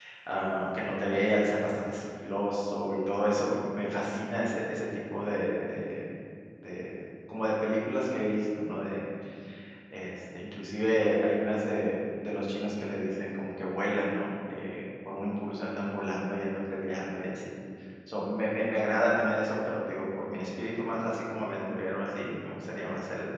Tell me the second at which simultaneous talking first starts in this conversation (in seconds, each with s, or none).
none